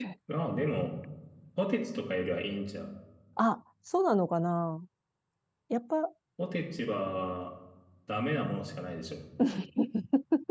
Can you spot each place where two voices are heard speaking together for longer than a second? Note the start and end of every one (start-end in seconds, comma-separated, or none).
none